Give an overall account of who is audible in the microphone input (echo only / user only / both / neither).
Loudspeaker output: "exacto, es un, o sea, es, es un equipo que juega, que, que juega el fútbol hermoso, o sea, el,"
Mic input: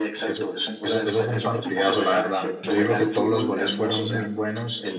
both